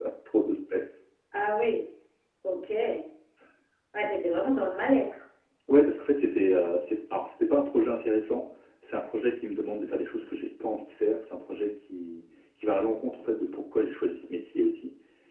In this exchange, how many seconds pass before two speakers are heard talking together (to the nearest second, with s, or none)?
none